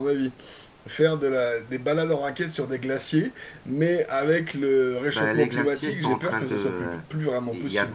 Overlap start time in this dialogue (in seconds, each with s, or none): 5.1 s